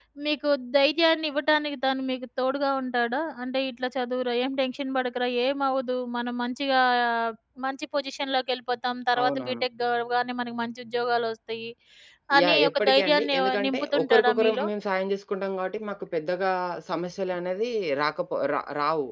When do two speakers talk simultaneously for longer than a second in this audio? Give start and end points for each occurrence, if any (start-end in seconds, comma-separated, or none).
12.4-14.6